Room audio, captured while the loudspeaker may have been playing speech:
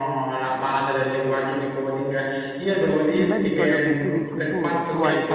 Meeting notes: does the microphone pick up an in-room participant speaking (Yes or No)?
Yes